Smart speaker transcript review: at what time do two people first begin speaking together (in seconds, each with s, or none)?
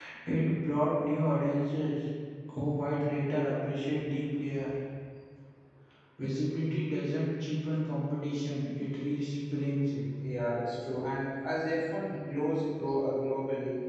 none